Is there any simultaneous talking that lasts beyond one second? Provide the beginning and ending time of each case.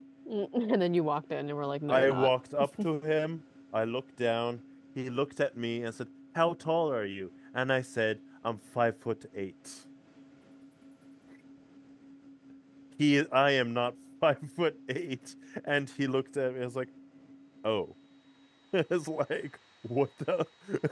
none

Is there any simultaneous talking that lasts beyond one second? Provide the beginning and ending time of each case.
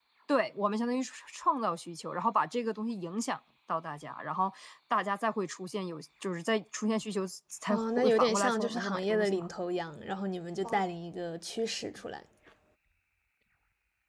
7.7-9.5

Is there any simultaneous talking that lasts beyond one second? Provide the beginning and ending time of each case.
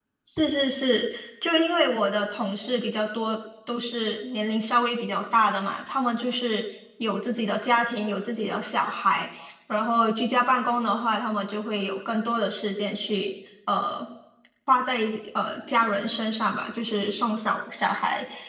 none

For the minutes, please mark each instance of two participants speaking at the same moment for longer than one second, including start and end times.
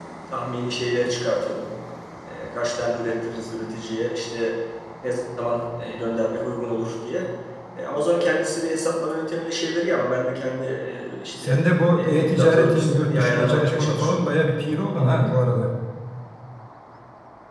11.4-14.2

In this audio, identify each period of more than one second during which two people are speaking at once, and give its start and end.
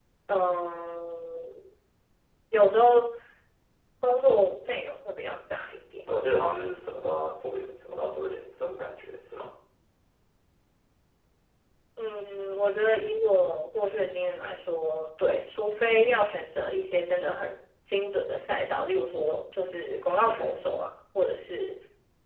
none

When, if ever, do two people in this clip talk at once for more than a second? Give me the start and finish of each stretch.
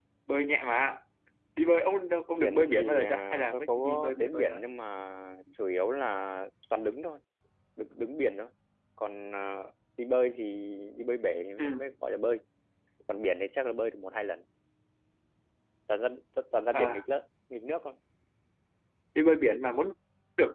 2.4-4.6

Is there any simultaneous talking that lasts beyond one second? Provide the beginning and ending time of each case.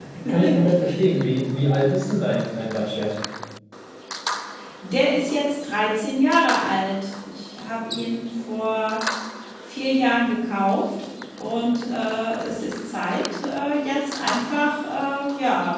none

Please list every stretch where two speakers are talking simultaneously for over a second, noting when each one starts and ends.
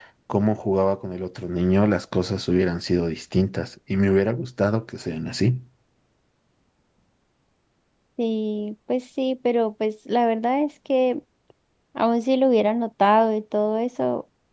none

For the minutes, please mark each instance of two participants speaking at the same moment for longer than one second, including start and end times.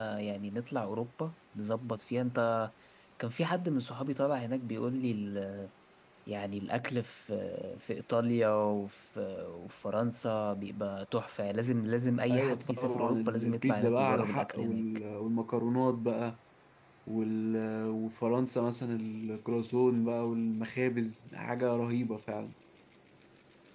12.3-14.8

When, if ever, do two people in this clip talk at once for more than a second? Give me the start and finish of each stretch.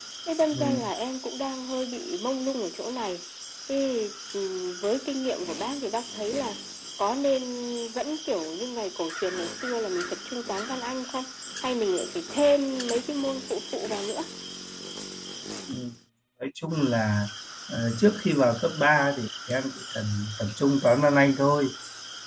none

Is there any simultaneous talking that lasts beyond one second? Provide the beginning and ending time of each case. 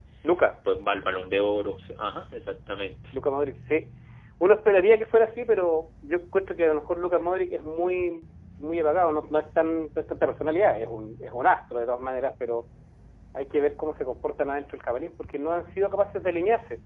none

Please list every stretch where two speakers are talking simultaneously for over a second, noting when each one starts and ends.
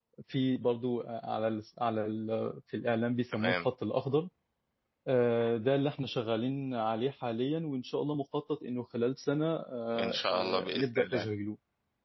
10.0-11.3

